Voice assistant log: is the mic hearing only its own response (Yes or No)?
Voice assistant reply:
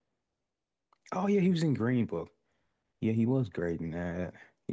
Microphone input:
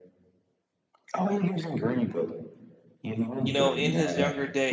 No